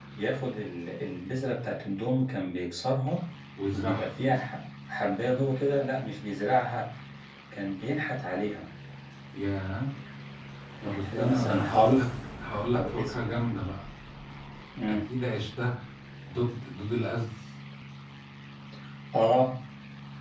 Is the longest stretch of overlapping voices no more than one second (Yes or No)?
No